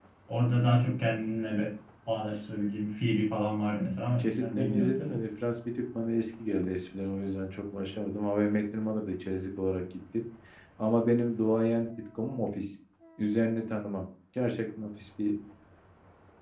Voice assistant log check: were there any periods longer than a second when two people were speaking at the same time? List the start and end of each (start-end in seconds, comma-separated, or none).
3.8-5.2